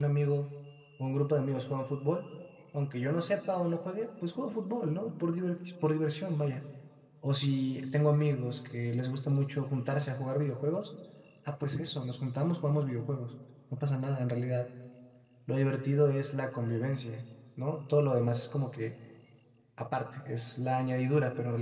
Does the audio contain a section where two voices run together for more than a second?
No

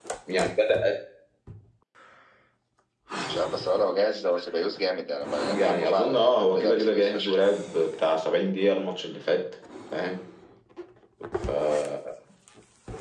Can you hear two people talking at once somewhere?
Yes, from 5.4 s

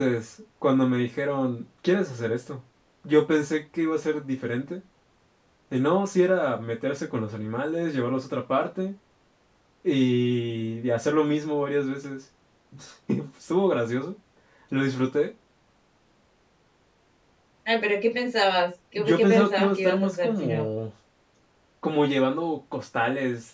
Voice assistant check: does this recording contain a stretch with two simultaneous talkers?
Yes, from 19.0 s

